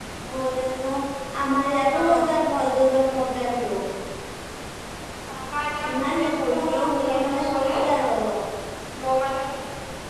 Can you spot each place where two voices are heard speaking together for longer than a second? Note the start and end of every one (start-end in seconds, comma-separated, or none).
5.9-7.7